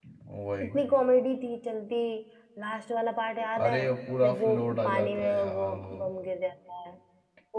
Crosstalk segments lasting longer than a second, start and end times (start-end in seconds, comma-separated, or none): 4.2-5.9